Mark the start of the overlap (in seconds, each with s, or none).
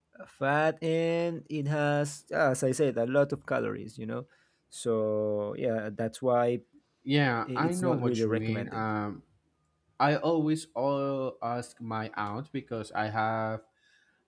7.5 s